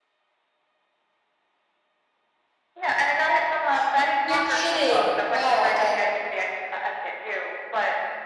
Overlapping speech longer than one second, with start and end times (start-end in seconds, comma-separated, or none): 4.3-6.0